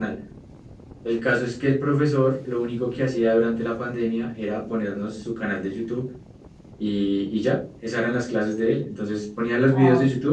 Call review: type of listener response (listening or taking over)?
listening